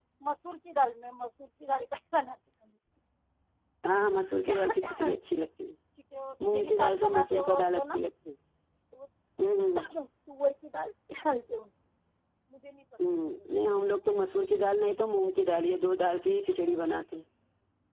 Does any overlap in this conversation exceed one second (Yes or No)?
Yes